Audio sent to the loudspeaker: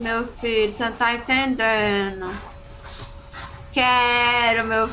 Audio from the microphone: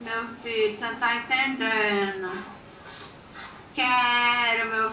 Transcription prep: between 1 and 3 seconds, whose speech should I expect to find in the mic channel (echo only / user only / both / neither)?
echo only